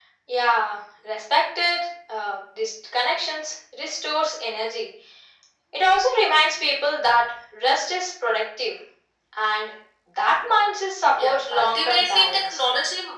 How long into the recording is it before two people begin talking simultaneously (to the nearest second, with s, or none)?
11 s